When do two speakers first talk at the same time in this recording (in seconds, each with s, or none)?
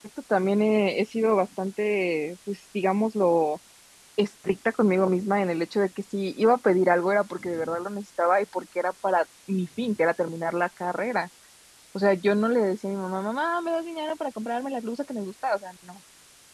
none